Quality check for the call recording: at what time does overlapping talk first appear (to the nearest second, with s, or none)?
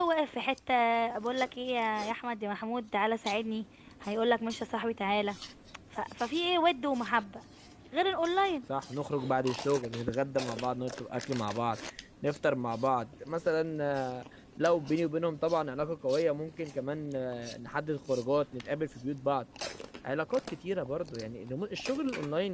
none